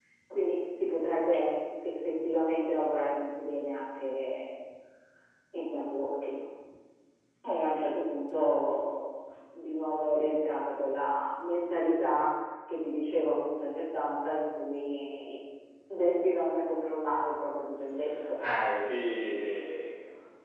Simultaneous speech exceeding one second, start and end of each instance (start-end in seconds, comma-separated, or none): none